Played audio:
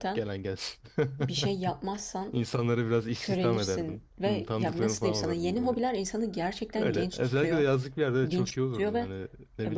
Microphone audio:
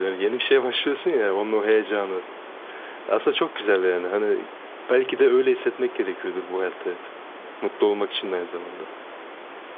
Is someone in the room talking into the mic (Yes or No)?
Yes